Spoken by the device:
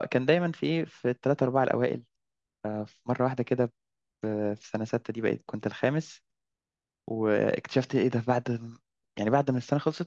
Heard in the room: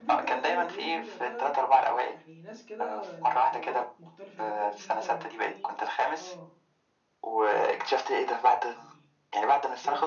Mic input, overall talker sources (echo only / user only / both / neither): both